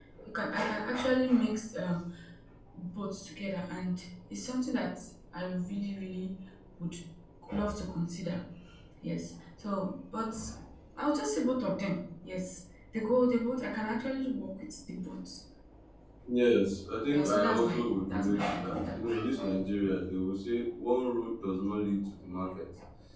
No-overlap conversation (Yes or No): No